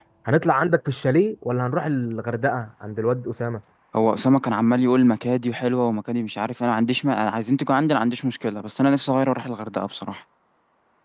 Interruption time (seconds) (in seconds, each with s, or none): none